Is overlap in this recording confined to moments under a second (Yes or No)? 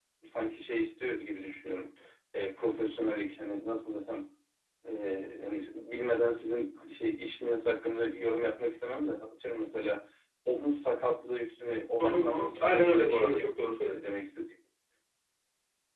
No